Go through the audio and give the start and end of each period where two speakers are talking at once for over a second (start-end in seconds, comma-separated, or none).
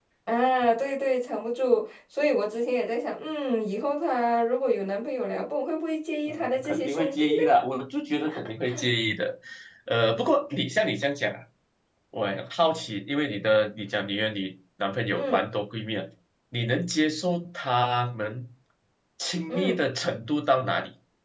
6.3-7.5